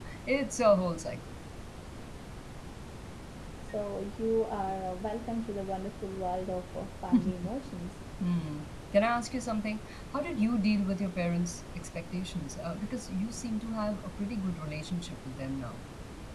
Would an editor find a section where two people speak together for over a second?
No

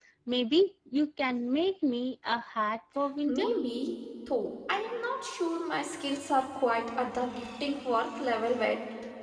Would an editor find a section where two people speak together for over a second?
No

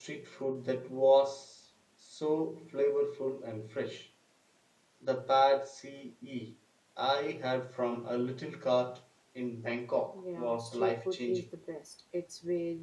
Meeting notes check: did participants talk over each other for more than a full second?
Yes, from 10.1 s

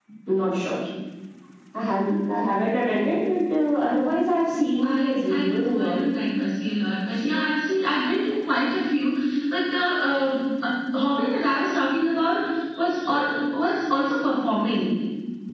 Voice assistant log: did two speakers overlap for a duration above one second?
Yes, from 4.8 s

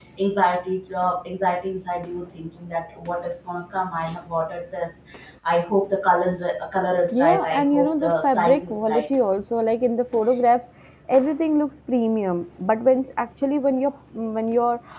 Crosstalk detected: Yes, from 7.1 s

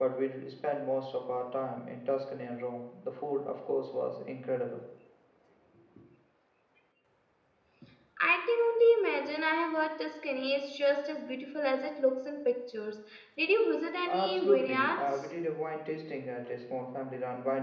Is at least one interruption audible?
Yes, from 14.0 s

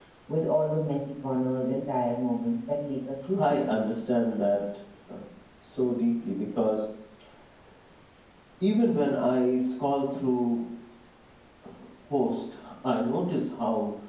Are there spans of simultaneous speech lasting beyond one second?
No

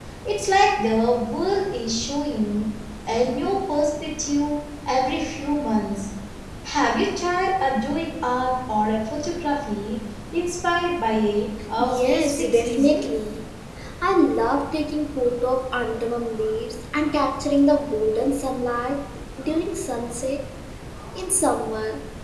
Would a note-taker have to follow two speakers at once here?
Yes, from 11.8 s

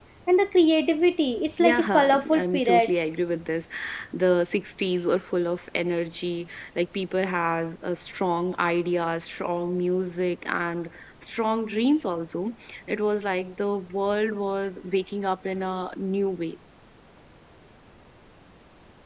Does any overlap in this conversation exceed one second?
Yes, from 1.6 s

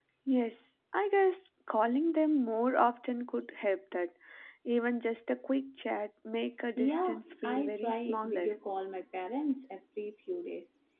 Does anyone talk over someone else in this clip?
Yes, from 6.8 s

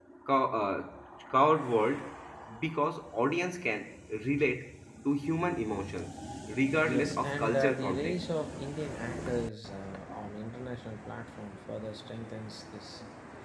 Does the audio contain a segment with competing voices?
Yes, from 6.8 s

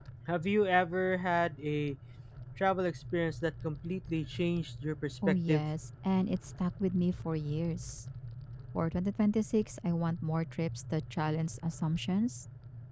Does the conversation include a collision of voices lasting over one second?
No

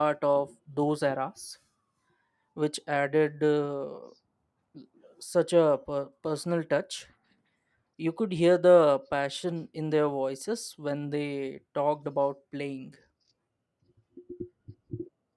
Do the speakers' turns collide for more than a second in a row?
No

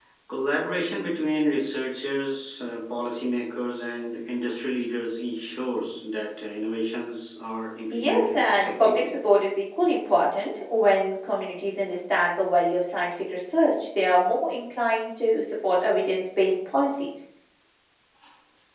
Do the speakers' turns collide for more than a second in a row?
Yes, from 7.9 s

